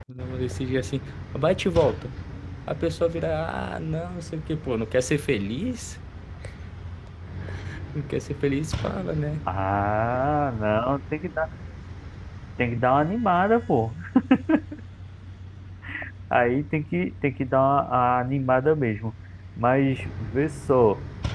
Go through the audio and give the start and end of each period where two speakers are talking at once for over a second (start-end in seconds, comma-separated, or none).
none